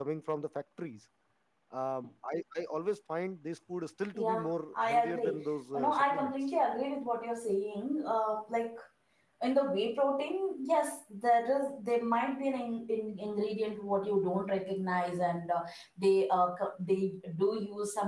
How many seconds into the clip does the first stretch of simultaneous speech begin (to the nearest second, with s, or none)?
4 s